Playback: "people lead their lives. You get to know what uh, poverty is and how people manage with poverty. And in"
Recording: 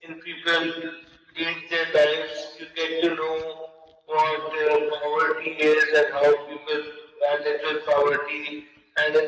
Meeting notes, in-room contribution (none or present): none